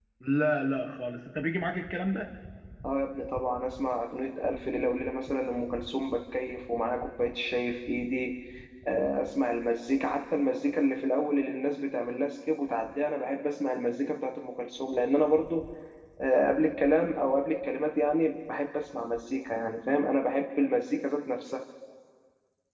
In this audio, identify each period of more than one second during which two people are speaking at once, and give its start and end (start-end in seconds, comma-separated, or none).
none